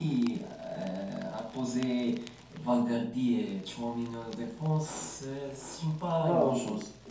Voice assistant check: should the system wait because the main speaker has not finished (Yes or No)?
No